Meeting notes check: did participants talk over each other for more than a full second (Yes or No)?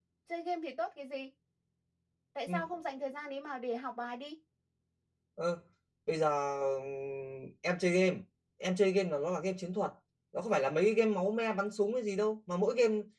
No